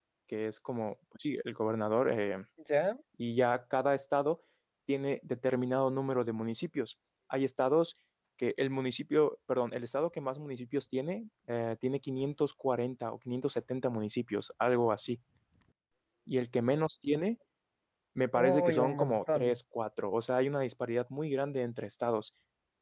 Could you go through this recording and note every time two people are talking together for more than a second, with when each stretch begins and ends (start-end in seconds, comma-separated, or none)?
18.4-19.6